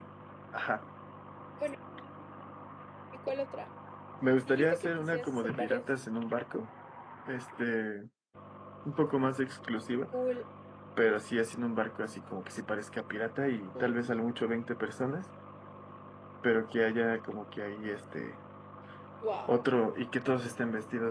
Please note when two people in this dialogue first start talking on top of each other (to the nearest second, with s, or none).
4 s